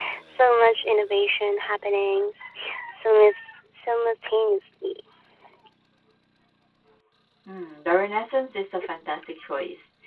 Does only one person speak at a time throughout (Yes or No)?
Yes